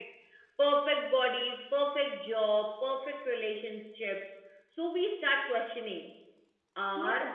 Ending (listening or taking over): listening